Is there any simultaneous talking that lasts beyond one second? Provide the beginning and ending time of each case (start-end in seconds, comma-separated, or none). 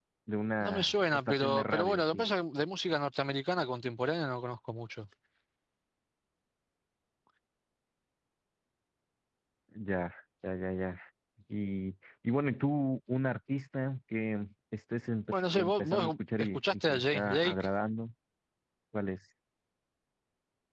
0.6-2.3, 15.3-17.7